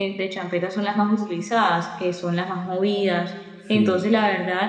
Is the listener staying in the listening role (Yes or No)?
Yes